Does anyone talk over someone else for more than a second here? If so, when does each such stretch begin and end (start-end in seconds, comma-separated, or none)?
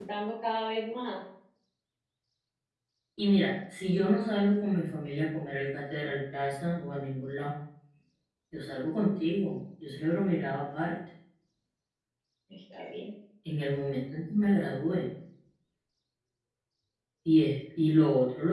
none